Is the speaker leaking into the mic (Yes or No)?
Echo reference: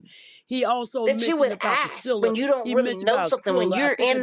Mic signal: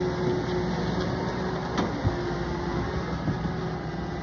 No